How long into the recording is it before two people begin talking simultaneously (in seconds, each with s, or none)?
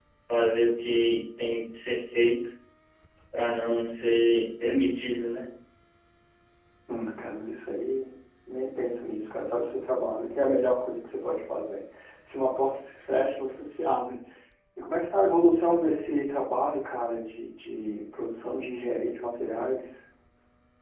none